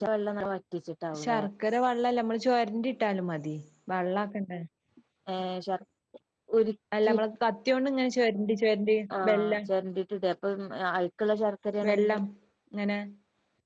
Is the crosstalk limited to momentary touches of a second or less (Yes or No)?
Yes